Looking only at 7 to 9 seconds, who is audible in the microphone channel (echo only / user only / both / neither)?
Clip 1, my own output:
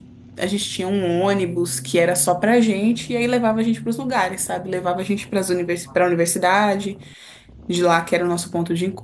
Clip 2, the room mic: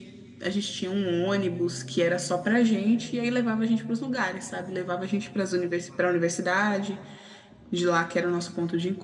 echo only